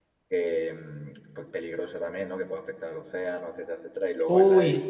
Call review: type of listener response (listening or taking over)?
listening